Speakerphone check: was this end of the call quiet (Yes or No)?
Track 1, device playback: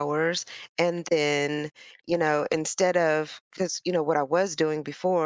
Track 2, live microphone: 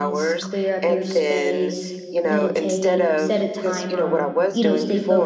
No